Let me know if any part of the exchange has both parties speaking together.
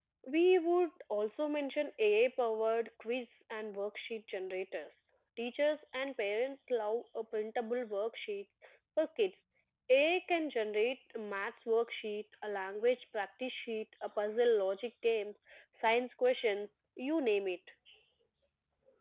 No

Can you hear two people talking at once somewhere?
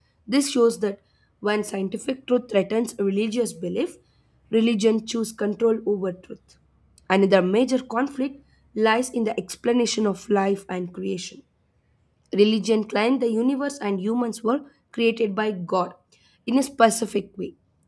No

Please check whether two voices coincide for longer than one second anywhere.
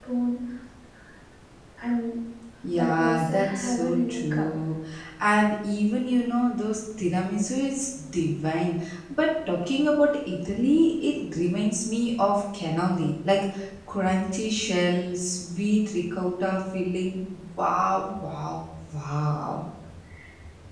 Yes, from 2.7 s

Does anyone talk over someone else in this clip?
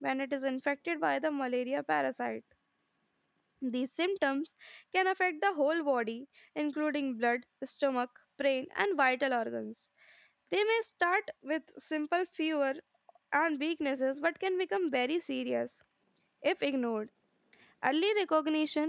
No

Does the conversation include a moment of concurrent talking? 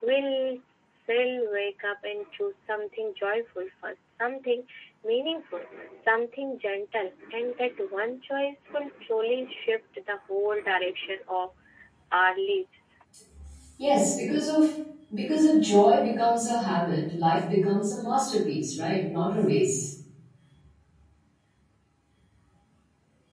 No

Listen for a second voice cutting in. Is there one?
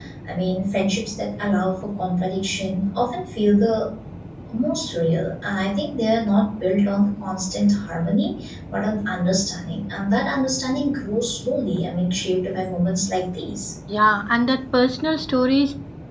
No

